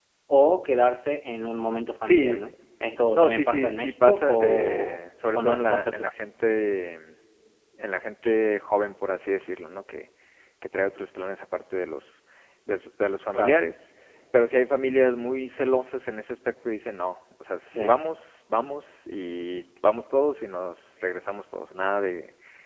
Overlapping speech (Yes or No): Yes